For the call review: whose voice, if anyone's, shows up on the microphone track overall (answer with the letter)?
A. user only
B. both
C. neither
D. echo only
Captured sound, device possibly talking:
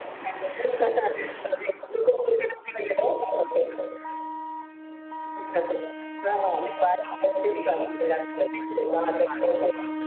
D